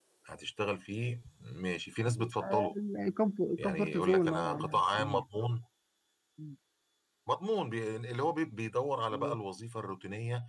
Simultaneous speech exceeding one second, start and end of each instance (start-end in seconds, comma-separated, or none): 3.6-5.2